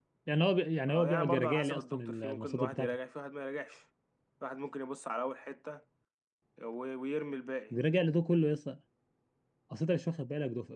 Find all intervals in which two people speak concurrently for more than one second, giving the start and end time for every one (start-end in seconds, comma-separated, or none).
0.9-3.0